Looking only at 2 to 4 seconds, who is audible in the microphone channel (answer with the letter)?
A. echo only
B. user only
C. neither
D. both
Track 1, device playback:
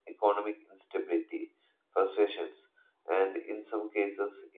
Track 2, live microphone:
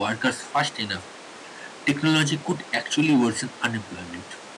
B